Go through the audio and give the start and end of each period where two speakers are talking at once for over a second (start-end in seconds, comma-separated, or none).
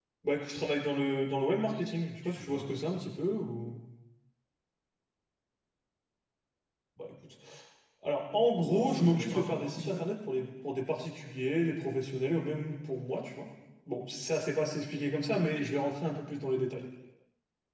8.7-10.1